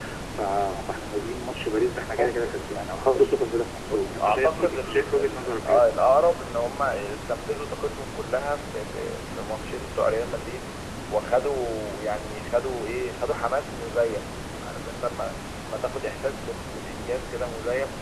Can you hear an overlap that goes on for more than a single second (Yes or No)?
Yes